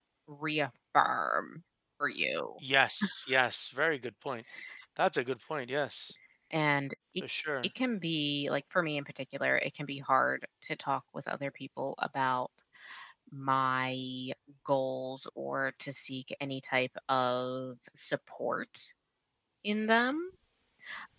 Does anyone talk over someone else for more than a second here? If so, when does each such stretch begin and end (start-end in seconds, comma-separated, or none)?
none